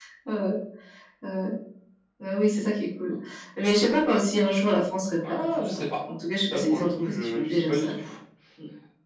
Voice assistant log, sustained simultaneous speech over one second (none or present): present